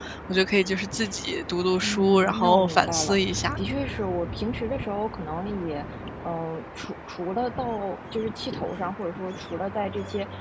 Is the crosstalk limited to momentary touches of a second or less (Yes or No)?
No